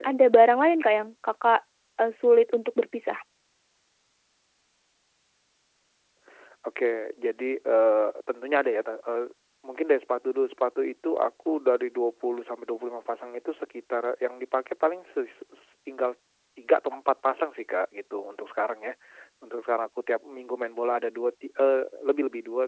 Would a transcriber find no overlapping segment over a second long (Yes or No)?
Yes